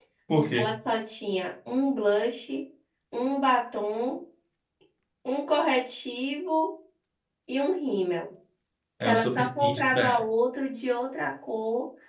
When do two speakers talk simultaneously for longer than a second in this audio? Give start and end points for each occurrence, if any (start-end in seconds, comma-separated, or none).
9.0-10.2